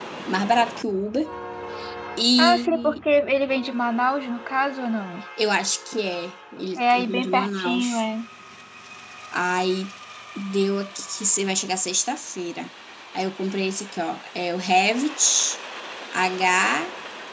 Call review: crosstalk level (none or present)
present